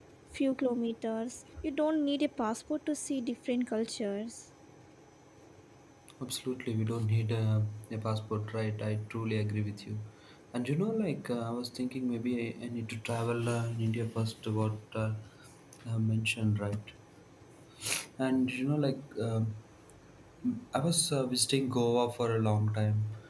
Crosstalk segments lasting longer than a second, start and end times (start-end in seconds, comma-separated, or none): none